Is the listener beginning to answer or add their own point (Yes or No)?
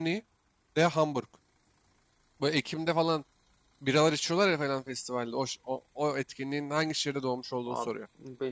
Yes